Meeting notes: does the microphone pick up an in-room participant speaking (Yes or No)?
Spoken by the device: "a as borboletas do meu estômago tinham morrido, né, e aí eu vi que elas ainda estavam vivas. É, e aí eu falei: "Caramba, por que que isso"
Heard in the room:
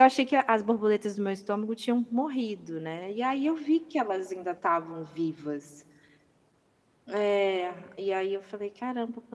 No